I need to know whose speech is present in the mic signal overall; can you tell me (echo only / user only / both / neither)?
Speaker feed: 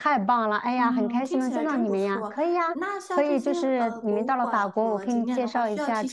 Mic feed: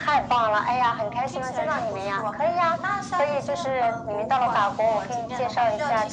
echo only